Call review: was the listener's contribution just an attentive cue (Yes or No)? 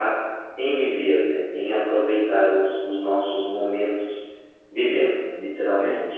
No